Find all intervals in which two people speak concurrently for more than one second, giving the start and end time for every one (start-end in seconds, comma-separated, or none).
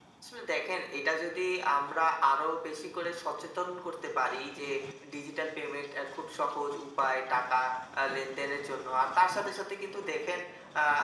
none